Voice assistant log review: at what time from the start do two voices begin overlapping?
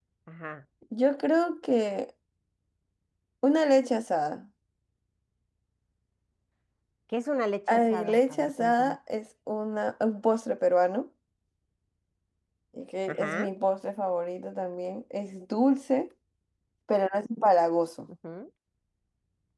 7.7 s

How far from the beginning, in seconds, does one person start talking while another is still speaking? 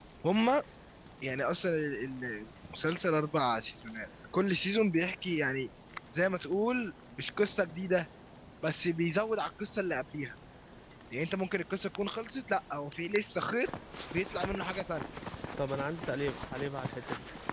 none

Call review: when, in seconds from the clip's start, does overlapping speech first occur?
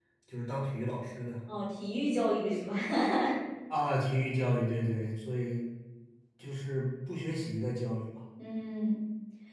none

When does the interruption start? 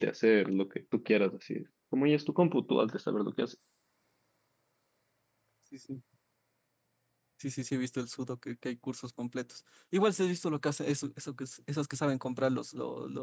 none

